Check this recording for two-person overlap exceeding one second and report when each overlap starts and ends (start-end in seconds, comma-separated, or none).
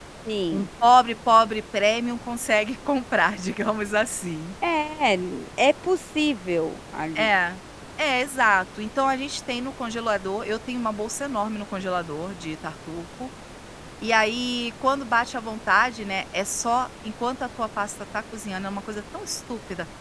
none